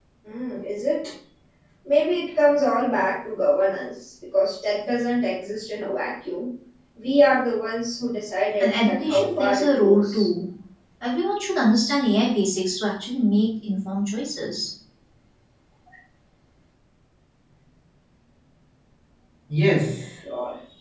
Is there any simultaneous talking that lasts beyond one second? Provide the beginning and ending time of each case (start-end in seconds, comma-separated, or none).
8.6-10.3